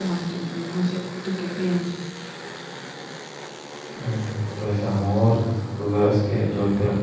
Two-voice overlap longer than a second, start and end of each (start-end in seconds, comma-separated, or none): none